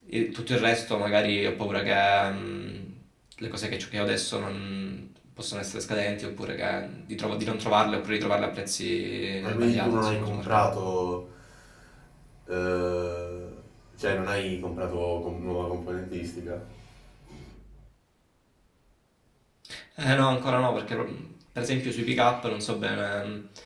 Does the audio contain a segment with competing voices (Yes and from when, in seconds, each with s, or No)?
Yes, from 9.4 s